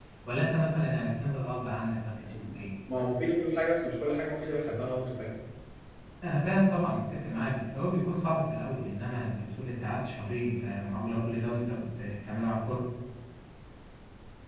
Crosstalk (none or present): none